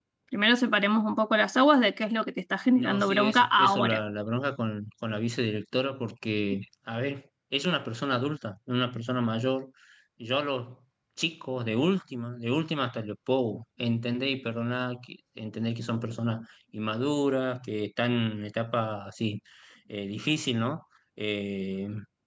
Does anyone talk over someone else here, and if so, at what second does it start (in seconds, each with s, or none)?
2.8 s